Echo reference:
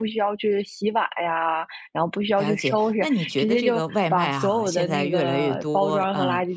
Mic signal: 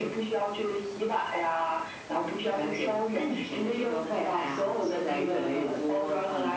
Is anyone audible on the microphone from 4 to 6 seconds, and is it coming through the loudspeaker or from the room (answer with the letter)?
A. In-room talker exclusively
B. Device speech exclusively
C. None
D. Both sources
B